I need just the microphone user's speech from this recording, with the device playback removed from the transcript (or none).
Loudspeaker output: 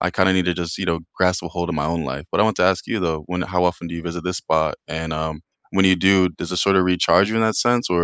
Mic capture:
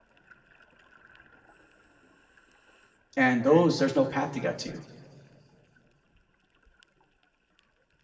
and those there's no path to get to.